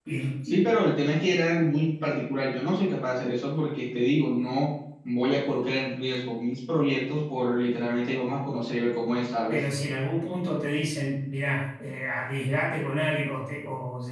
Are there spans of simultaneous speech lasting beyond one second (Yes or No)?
No